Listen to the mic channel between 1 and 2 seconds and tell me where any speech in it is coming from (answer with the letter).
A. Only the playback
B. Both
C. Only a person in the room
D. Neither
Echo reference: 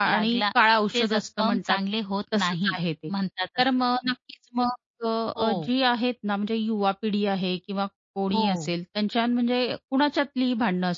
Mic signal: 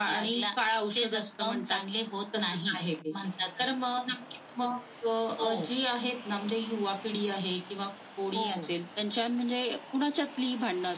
A